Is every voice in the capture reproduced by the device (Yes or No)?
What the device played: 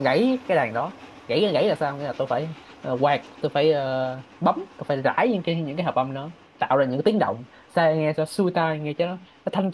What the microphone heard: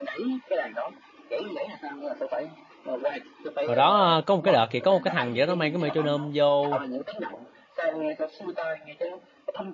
No